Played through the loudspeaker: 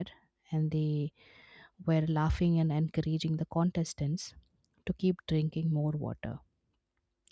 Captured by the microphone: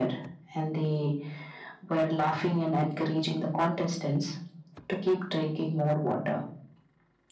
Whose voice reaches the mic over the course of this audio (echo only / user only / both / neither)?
echo only